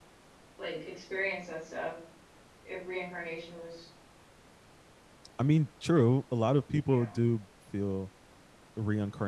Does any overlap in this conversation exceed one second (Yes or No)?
No